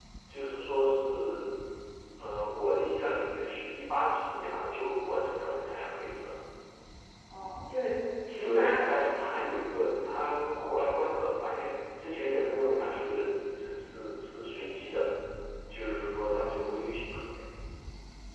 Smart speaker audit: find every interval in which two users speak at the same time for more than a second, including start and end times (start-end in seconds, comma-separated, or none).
none